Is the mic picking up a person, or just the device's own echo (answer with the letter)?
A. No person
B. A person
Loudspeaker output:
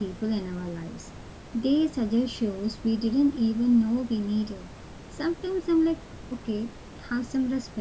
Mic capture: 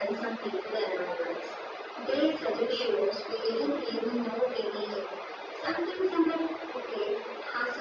A